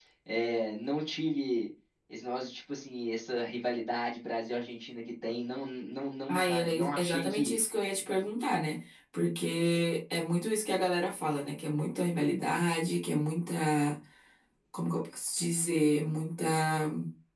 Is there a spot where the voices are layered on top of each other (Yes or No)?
Yes